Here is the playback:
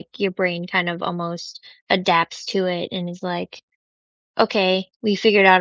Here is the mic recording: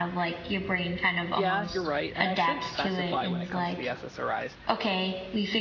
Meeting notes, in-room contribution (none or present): present